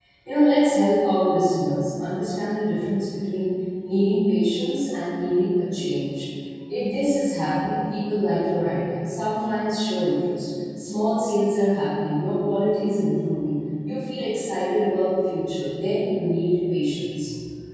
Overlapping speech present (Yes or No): No